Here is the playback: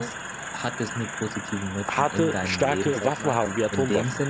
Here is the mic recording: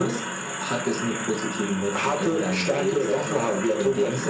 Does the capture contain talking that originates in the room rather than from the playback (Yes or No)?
No